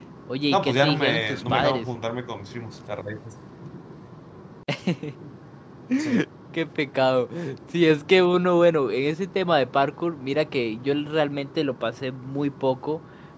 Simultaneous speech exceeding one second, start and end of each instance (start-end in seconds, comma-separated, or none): 0.5-1.9